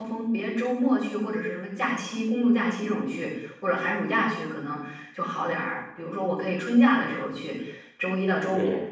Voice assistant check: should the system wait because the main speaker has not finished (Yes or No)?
Yes